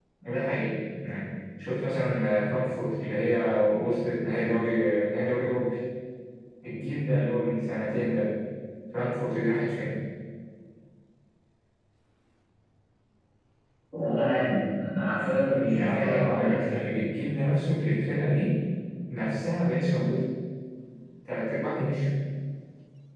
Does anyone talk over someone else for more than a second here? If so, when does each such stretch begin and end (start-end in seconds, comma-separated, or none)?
15.4-16.7